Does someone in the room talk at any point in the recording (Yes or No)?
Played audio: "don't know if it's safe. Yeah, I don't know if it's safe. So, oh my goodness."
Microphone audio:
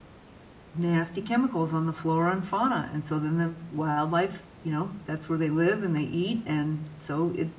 Yes